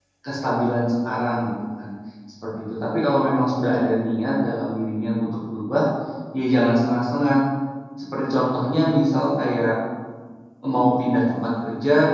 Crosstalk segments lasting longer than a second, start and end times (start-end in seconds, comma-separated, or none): none